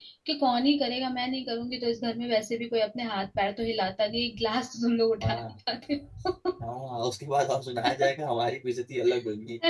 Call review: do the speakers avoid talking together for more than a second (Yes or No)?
Yes